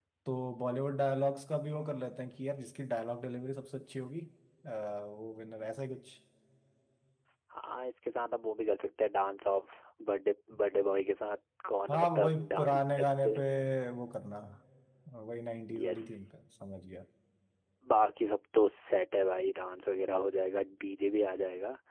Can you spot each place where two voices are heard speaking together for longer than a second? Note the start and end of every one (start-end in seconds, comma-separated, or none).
11.9-13.3